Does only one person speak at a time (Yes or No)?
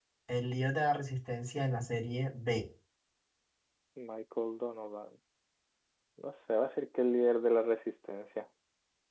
Yes